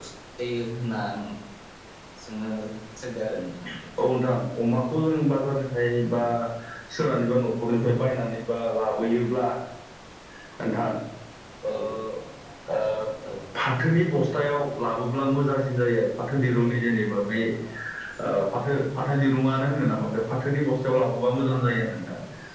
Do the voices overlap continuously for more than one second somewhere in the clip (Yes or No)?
No